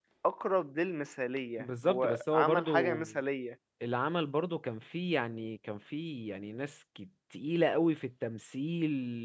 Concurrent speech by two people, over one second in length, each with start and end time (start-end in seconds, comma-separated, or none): 1.6-3.0